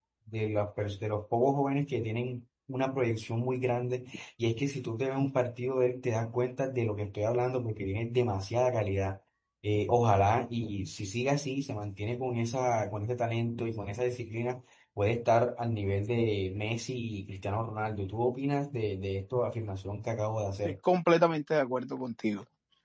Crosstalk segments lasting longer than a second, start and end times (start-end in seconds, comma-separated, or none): none